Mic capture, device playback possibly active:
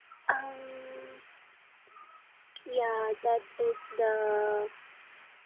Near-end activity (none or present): present